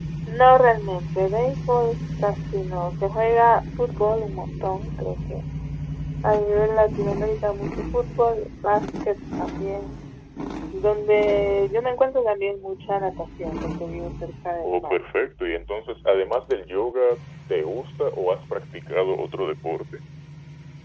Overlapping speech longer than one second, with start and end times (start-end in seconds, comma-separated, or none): none